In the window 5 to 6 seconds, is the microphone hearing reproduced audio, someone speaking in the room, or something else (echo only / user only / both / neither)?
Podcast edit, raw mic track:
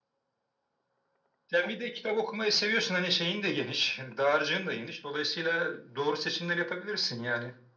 echo only